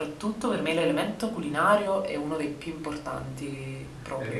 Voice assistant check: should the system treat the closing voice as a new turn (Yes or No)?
Yes